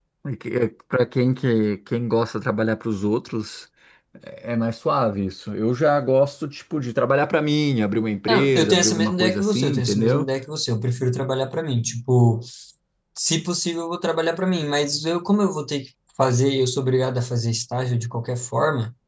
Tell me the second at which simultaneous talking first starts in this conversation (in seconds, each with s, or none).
8.3 s